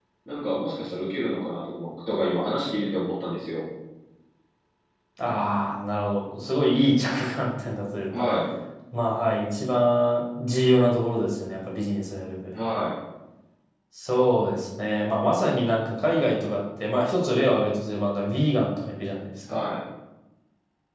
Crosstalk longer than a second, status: none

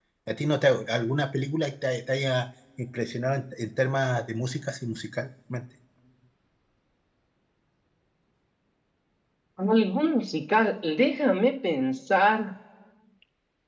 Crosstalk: none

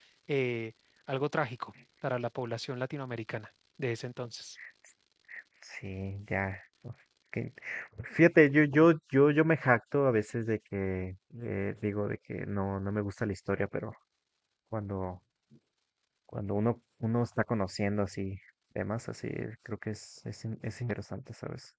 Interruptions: none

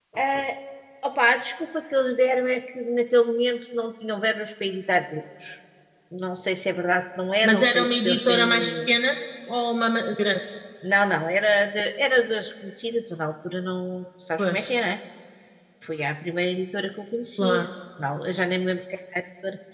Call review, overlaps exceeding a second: present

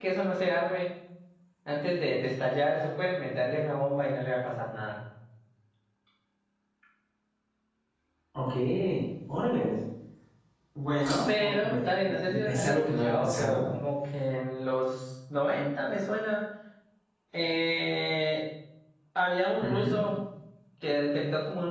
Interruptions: present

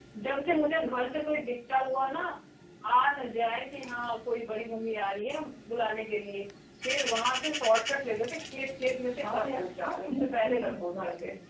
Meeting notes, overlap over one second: present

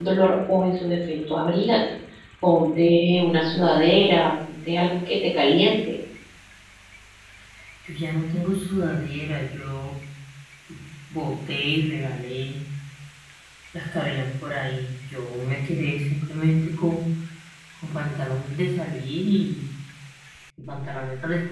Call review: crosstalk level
none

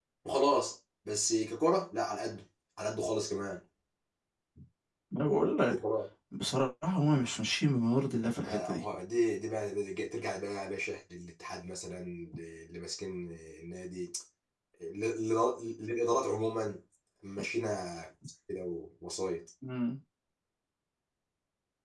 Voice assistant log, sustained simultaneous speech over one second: none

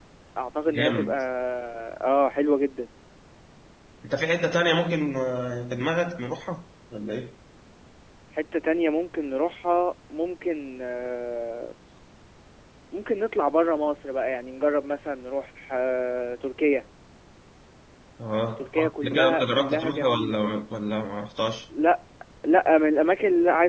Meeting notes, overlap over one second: present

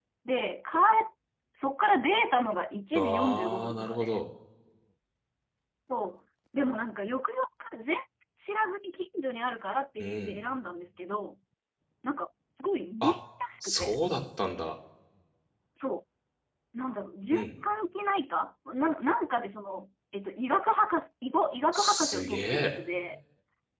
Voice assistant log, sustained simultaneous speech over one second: present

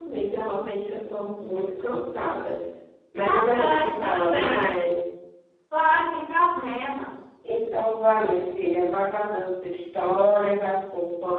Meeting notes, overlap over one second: present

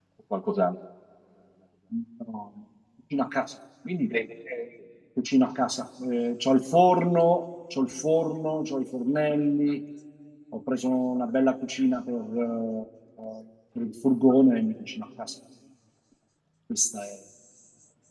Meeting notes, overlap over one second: none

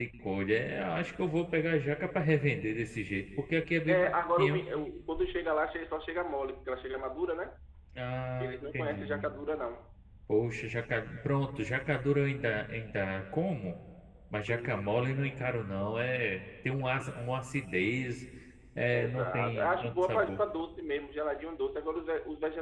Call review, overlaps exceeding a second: present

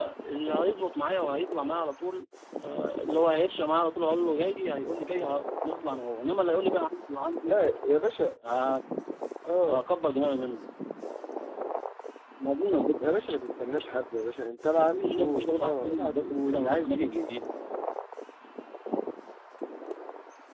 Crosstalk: present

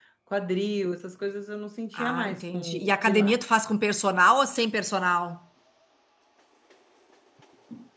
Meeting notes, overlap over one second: present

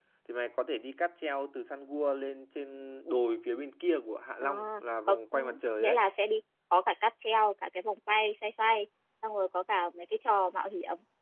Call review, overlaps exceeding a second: none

